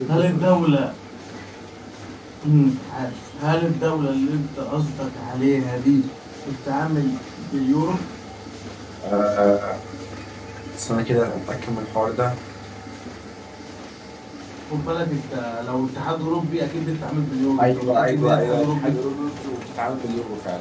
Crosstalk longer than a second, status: present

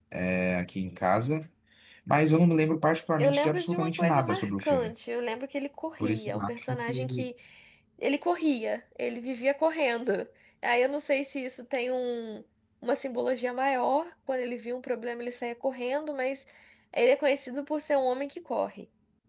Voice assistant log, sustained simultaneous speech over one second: present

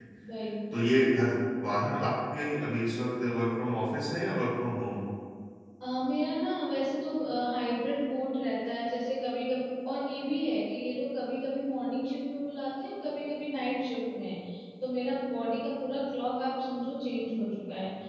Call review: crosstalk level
none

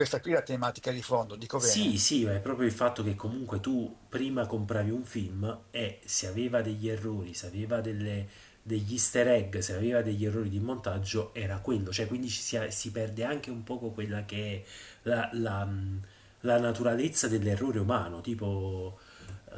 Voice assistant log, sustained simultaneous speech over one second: none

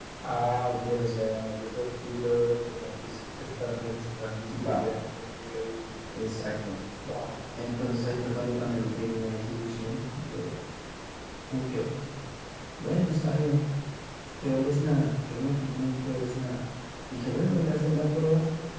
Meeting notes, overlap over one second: none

